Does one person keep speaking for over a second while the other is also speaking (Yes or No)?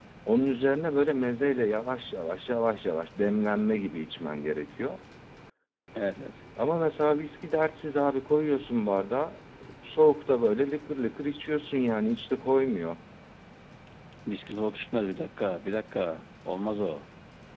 No